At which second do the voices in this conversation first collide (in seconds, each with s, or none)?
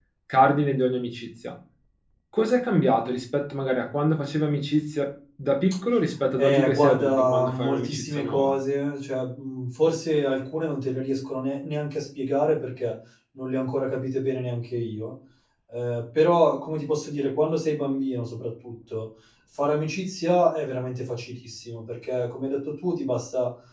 6.4 s